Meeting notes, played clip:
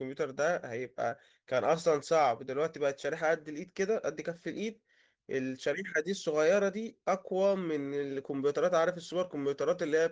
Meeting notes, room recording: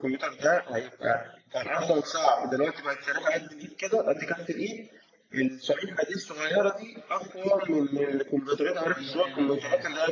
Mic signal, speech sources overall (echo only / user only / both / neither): both